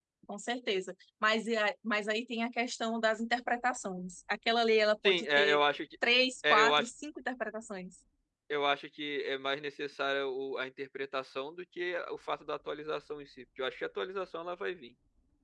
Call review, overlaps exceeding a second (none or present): none